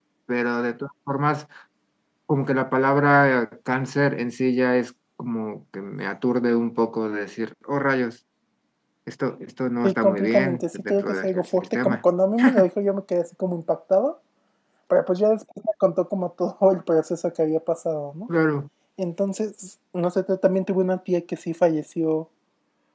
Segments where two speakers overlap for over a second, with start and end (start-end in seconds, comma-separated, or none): 9.8-12.0